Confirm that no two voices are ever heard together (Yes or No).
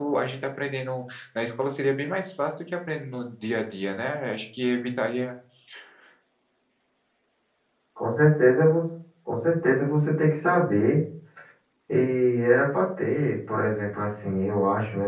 Yes